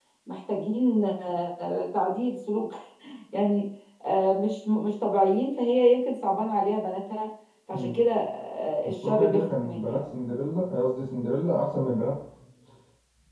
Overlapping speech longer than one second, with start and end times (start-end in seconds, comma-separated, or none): 8.8-10.1